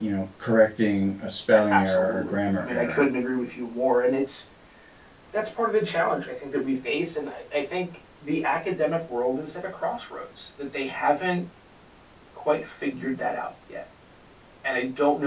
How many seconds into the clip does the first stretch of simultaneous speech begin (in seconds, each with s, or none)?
1.5 s